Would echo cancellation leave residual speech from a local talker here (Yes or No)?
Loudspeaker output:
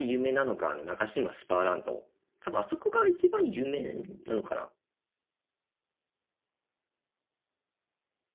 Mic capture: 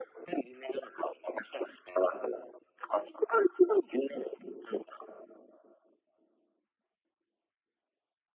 No